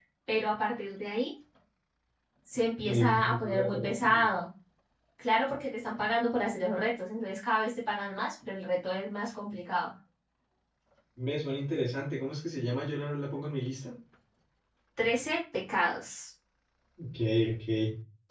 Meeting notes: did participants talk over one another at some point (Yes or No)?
Yes